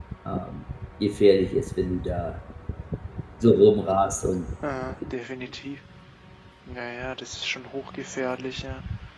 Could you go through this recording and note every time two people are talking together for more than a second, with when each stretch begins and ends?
none

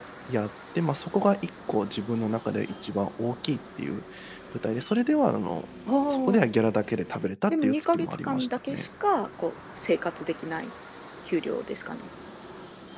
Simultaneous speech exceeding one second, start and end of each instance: 7.5-8.9

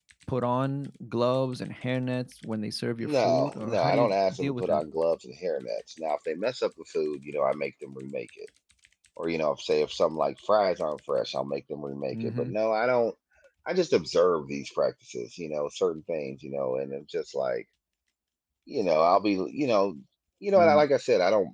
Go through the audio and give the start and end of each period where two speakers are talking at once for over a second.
3.0-4.8

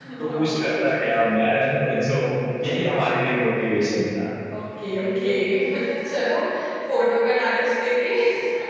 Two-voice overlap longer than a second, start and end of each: none

